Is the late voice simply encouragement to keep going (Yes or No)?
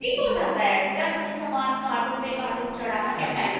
Yes